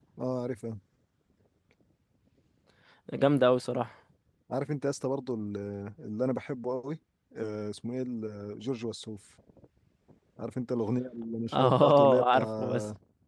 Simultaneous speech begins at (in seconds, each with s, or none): 11.5 s